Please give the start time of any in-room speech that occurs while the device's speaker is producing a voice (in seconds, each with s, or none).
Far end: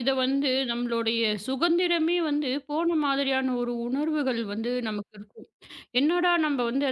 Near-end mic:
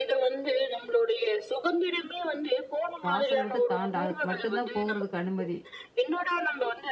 3.1 s